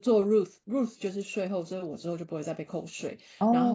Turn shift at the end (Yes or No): No